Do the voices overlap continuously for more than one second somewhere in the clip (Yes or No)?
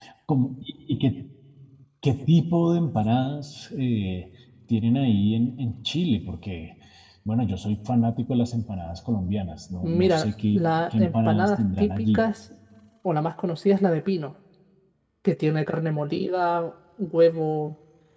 Yes